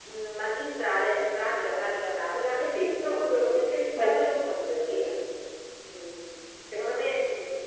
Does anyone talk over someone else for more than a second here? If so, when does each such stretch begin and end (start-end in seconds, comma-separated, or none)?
2.6-4.3